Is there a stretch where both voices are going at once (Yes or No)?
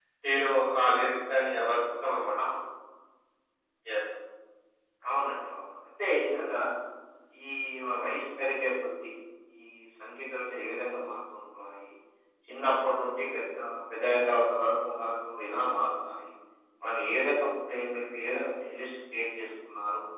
No